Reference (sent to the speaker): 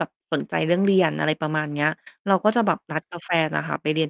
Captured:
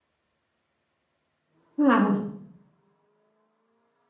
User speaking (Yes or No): Yes